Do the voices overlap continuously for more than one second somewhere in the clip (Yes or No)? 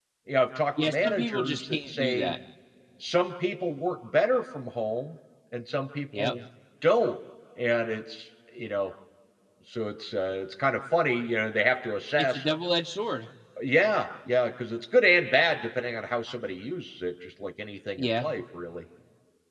Yes